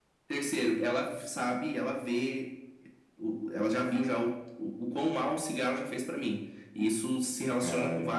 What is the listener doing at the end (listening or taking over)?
listening